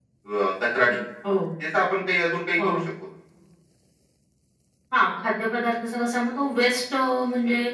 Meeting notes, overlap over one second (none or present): none